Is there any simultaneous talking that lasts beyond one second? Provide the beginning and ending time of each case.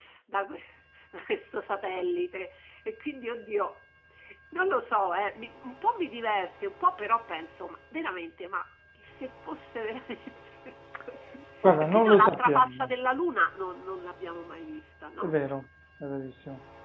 11.6-12.9

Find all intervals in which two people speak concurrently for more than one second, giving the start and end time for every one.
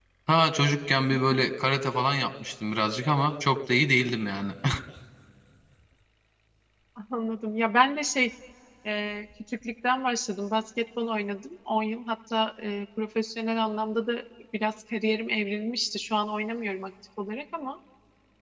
none

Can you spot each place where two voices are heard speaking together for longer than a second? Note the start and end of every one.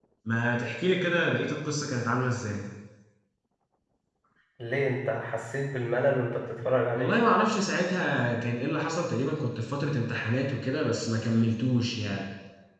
none

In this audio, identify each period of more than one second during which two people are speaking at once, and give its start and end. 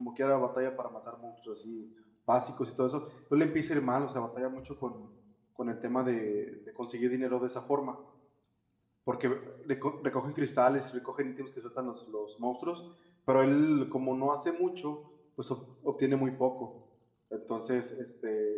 none

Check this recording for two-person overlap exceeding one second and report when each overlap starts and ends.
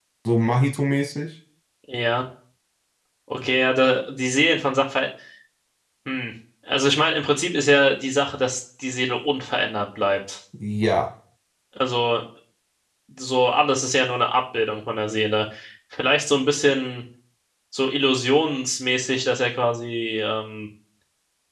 none

